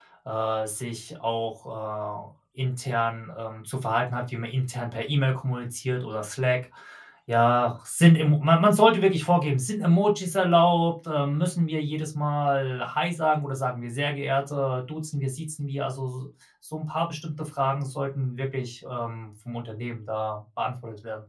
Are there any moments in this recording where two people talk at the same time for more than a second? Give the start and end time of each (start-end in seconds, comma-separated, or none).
none